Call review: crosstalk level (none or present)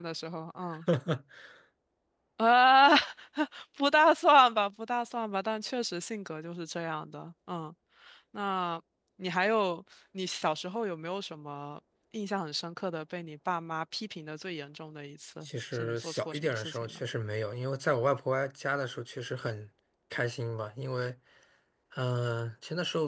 present